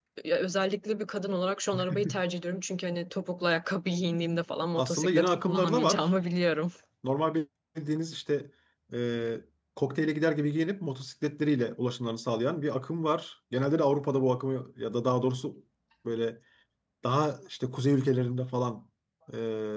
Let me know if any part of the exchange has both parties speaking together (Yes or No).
Yes